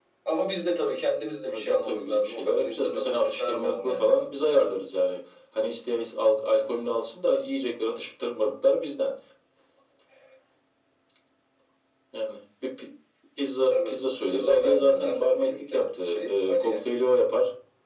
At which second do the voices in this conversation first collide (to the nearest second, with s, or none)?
1 s